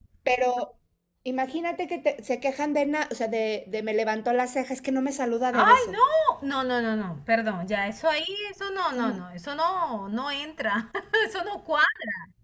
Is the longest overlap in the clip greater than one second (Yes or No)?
No